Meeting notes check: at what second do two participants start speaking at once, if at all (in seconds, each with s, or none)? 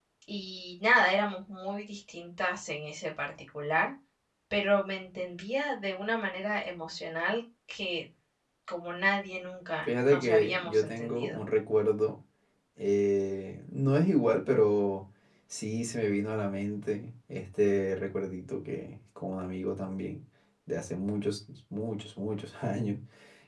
10.1 s